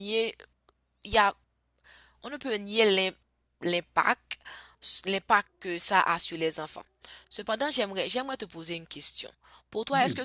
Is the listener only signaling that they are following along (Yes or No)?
Yes